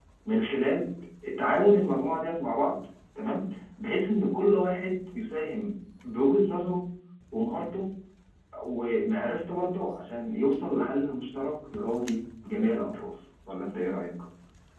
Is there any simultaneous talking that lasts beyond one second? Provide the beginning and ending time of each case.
none

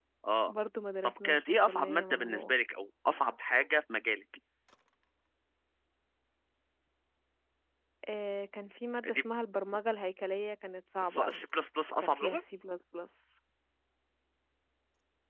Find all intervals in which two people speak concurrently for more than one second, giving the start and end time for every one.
1.0-2.5

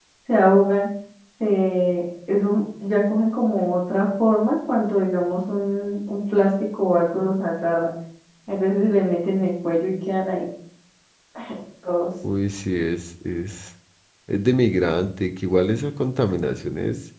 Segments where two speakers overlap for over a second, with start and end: none

